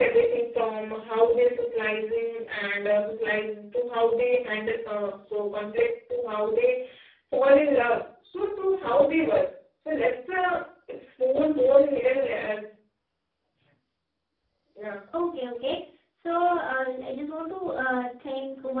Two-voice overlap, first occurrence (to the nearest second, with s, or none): none